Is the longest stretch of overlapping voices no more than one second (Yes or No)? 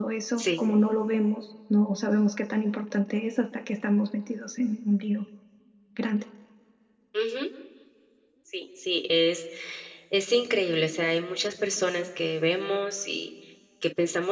Yes